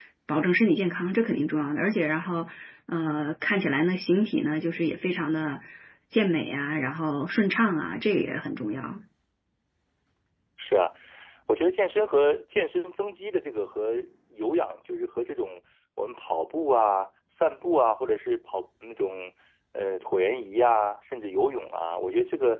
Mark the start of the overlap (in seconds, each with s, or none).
none